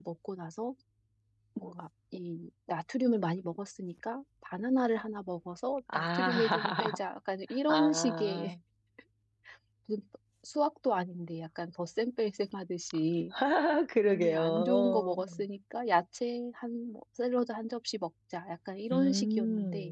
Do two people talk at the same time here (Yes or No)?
Yes